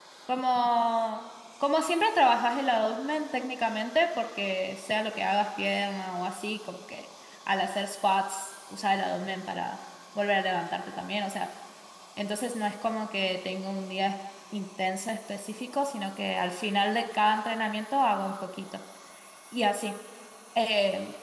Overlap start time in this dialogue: none

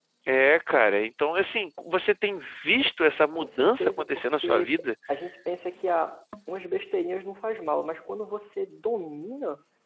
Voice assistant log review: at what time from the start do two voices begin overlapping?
3.3 s

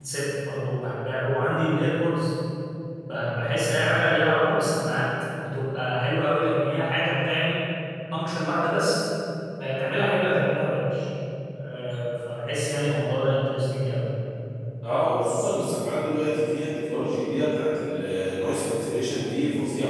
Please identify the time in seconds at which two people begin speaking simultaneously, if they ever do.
none

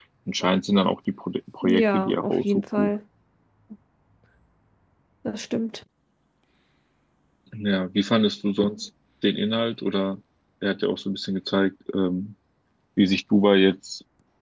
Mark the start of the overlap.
1.6 s

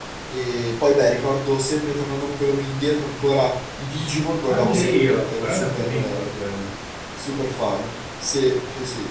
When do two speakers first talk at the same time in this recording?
4.5 s

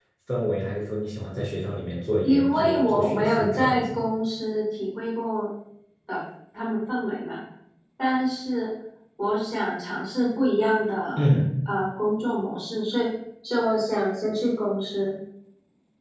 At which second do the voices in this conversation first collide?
2.2 s

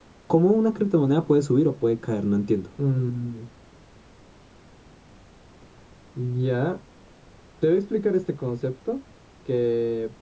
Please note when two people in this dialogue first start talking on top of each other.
none

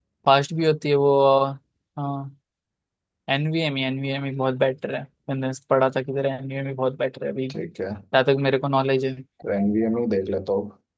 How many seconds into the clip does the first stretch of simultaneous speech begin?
none

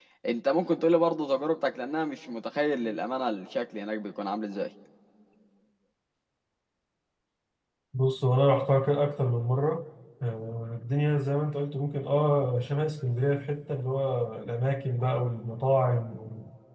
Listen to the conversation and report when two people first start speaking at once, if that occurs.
none

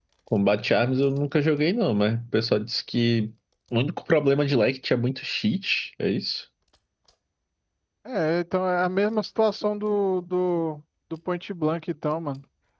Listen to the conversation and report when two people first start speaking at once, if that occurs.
none

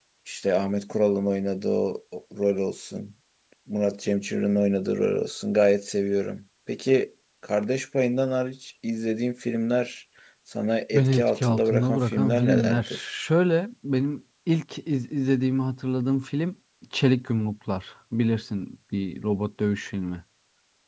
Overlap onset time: 10.9 s

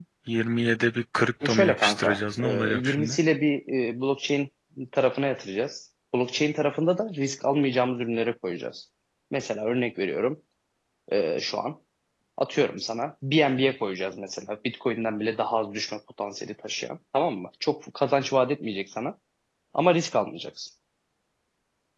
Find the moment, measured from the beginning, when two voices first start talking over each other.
1.4 s

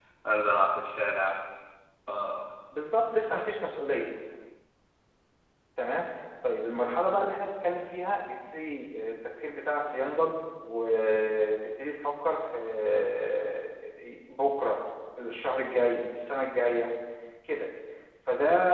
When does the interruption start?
none

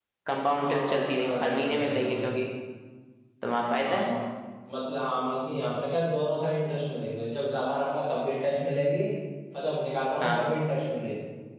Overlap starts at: 0.6 s

